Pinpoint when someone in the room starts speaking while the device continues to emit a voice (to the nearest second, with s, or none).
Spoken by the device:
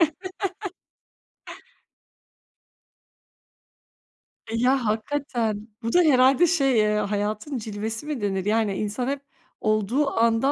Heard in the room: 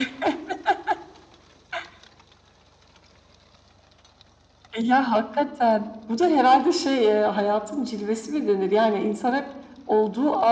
none